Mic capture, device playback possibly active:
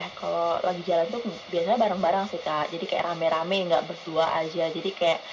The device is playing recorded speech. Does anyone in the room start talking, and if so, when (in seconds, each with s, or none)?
none